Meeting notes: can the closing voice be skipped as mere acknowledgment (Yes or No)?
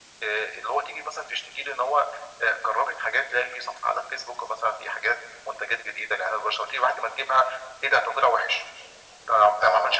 Yes